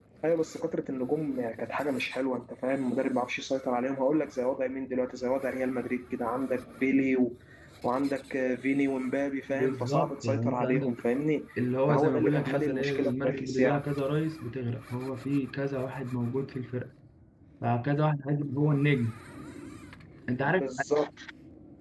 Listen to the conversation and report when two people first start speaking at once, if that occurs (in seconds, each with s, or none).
9.5 s